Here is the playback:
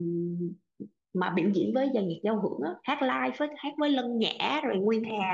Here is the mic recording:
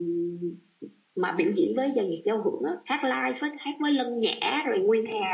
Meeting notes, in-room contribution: none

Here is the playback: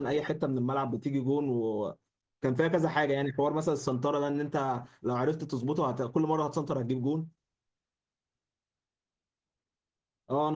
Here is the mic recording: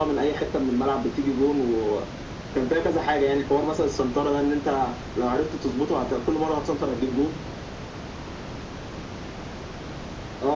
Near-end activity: none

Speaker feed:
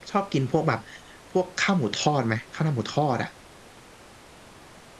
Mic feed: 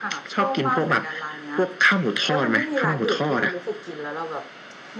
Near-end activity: present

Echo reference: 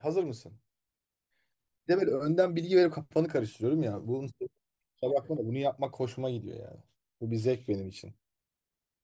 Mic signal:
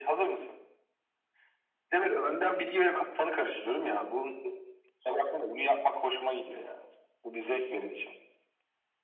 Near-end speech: none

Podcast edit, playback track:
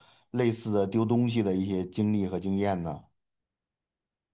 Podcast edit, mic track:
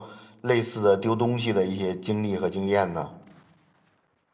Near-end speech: none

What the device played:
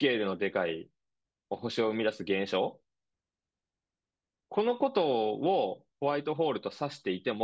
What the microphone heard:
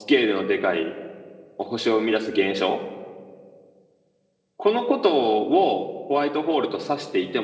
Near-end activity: none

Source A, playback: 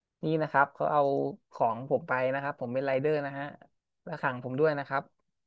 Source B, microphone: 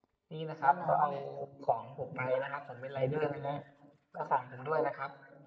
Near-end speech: present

